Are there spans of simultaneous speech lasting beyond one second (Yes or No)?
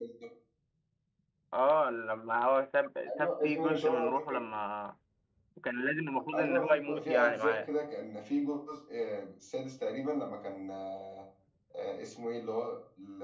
Yes